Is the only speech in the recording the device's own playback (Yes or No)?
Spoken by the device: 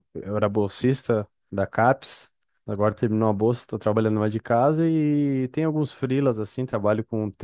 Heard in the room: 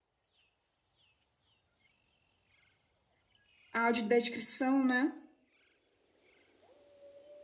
No